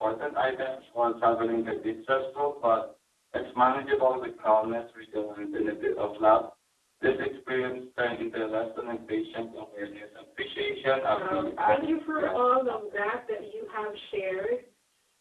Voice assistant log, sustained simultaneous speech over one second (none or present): present